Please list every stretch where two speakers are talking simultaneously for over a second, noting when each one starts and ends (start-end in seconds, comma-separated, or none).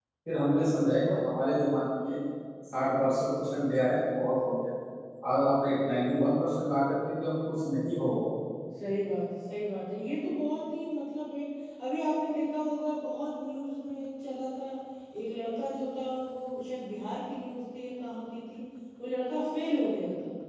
none